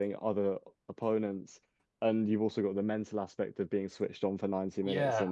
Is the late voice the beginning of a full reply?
No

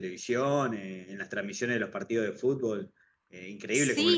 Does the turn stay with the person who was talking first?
No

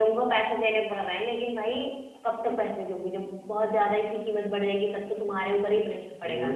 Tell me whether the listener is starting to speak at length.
Yes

